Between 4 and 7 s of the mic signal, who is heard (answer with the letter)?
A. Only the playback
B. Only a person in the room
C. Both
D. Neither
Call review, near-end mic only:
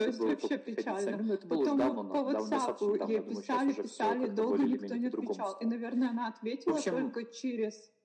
A